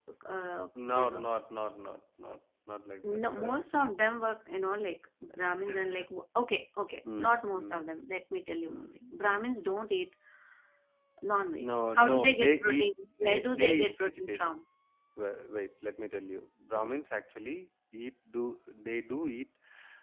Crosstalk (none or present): present